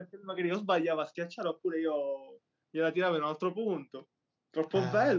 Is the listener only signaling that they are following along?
No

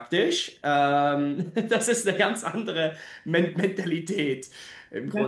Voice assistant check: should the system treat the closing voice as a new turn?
Yes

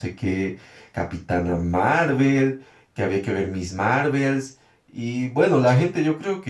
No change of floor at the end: Yes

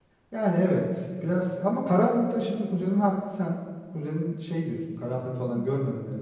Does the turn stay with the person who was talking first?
No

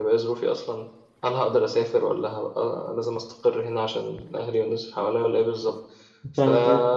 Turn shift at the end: No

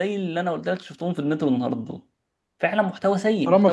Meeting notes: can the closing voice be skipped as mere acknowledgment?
No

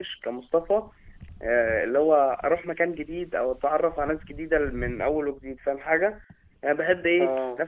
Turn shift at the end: No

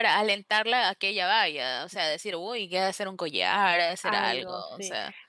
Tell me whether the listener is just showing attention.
No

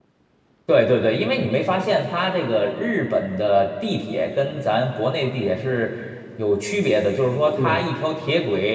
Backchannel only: Yes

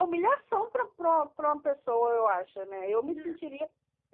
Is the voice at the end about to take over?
No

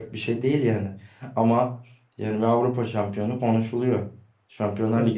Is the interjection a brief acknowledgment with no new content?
Yes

